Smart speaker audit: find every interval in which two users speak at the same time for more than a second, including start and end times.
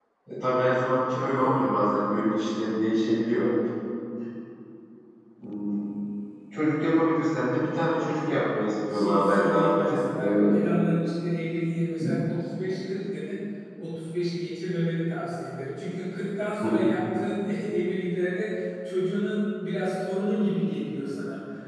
8.9-10.6

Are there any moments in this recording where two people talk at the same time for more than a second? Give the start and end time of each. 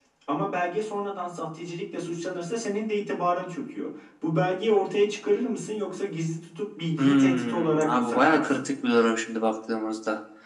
7.0-8.7

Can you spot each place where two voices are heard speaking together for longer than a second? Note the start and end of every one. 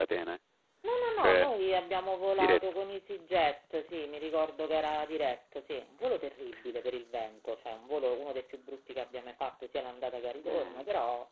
none

